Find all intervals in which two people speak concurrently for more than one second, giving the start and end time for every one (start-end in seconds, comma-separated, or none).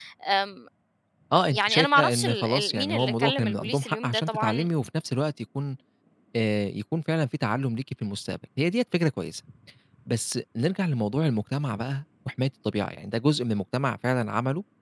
1.6-4.7